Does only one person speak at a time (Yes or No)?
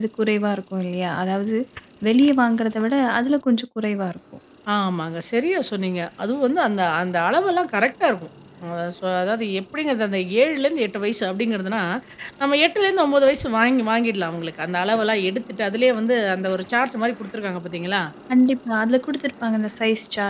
Yes